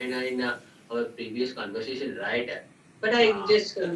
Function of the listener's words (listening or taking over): listening